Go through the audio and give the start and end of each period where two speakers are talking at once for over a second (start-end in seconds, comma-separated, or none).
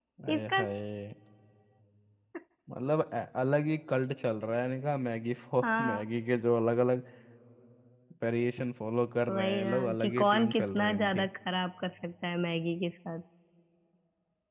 9.3-11.3